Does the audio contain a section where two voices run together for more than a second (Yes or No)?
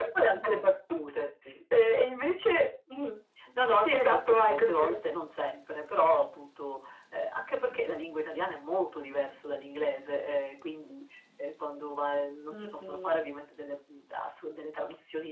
Yes